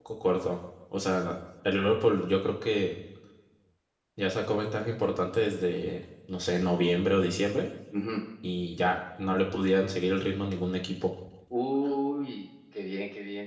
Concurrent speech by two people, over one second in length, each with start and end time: none

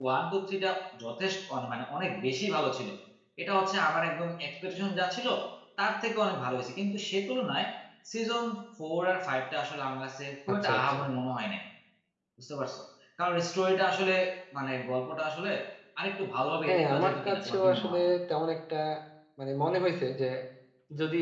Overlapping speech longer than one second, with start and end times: 16.7-18.0

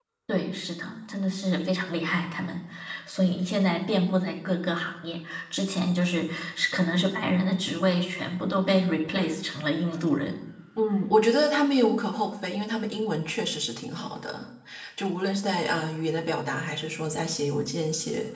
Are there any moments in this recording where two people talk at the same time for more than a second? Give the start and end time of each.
none

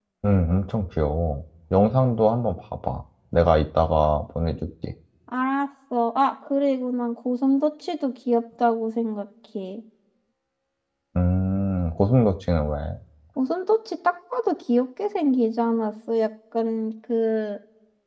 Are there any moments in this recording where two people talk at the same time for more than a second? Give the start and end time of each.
none

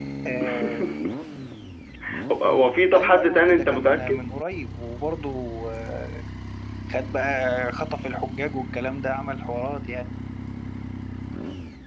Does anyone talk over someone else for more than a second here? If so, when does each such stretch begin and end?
2.9-4.2

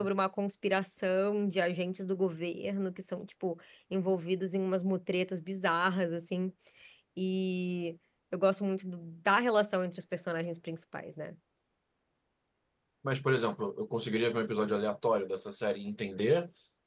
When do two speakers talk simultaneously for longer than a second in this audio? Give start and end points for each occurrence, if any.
none

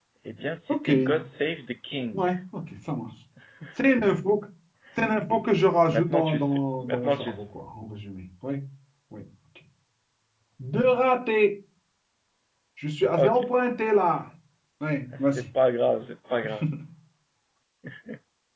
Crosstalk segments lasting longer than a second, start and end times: 5.9-7.4

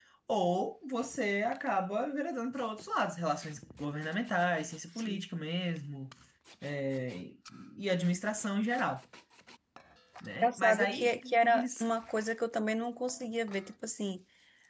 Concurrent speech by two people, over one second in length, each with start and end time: 10.4-11.9

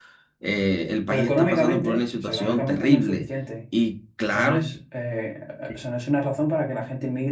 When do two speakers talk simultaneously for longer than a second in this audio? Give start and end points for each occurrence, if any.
1.1-3.3

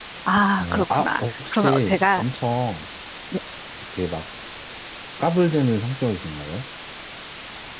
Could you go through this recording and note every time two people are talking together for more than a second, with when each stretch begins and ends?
0.6-2.2

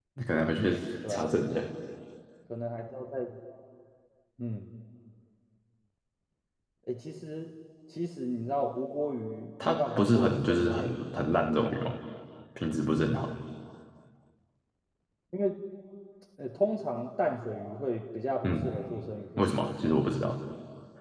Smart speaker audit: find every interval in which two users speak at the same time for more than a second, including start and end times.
9.6-10.9

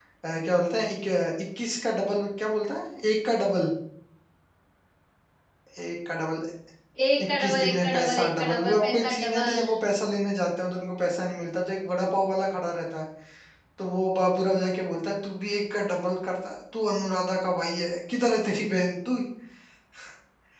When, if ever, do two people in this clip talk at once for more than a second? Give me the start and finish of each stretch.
7.4-9.7

